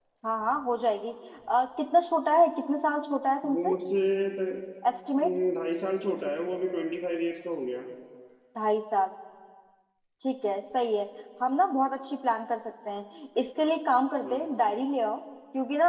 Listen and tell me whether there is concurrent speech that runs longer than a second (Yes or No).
No